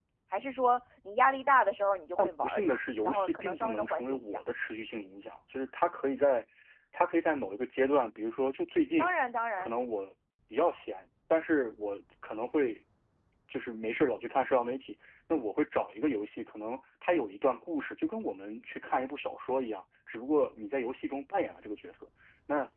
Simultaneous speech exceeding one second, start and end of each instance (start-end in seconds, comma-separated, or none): 2.2-4.4